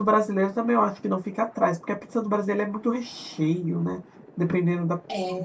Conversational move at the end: taking over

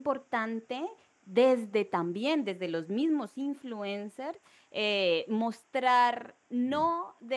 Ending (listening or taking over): listening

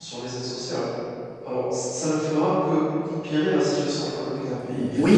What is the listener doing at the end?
taking over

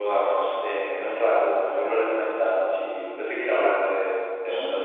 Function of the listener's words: taking over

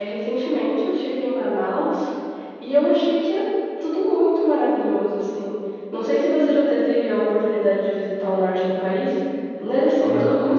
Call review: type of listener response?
listening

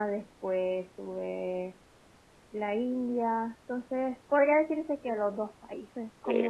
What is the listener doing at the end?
taking over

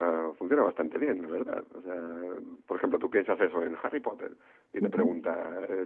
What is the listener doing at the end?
listening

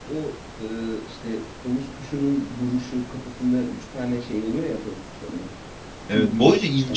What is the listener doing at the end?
taking over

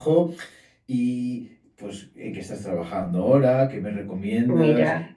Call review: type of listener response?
listening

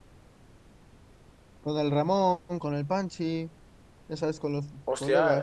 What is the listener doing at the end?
taking over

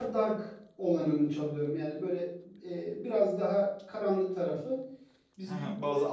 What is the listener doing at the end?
taking over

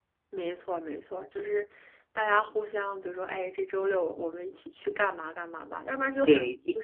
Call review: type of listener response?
taking over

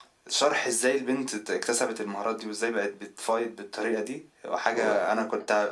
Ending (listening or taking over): listening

